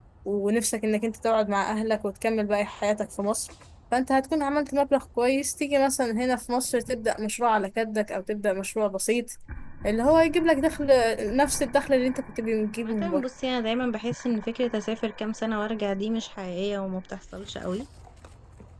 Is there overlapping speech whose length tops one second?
No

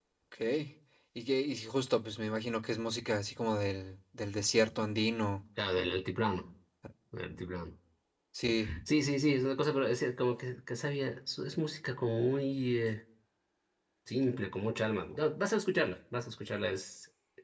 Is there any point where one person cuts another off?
No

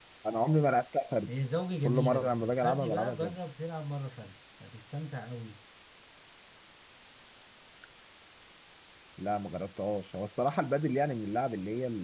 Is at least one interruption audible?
Yes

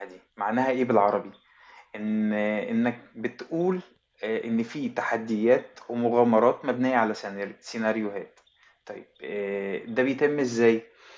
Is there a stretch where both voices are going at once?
No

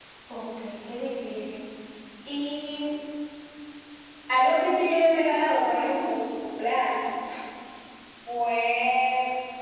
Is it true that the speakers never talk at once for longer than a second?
Yes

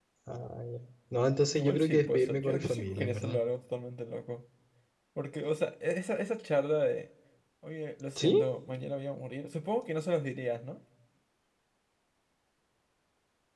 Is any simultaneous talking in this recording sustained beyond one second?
Yes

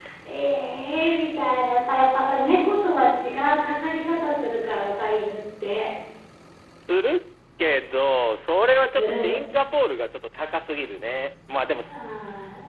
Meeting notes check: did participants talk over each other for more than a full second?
No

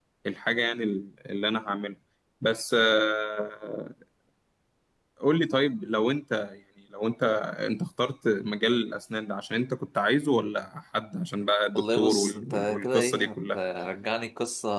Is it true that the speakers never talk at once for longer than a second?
No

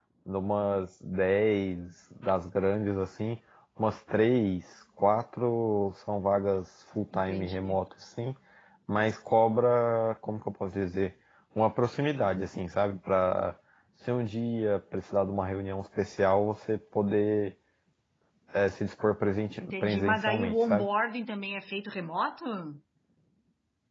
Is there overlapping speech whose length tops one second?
Yes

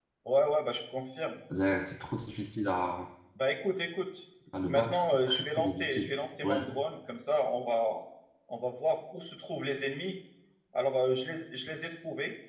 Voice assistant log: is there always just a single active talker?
No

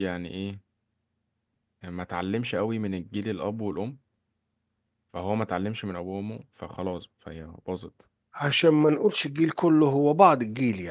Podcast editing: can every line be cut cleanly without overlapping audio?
Yes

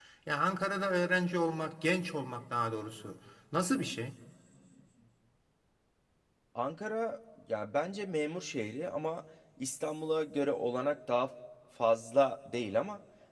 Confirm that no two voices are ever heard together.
Yes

